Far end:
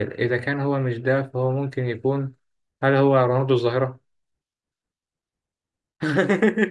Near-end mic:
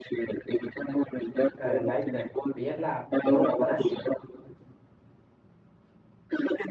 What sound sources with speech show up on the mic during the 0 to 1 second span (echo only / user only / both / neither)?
echo only